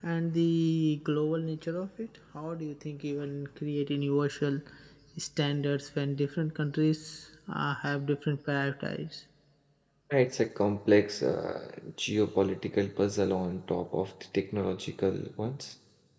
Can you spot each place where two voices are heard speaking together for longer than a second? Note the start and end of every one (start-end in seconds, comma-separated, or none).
none